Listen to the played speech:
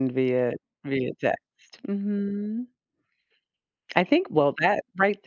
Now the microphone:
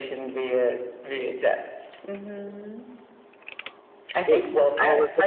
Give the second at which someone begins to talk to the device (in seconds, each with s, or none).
4.3 s